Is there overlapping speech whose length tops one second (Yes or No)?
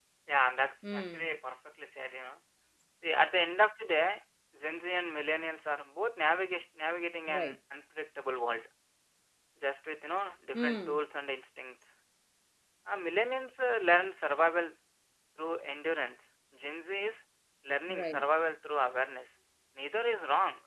No